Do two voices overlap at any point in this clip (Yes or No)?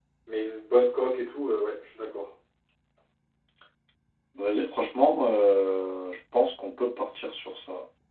No